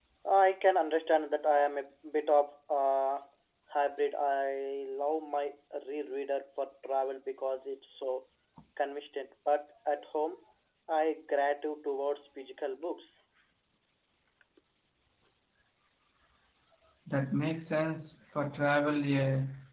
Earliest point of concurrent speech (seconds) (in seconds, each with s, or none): none